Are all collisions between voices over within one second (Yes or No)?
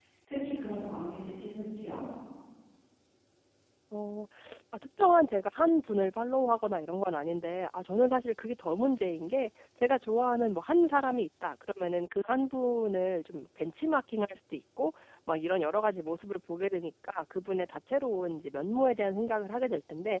Yes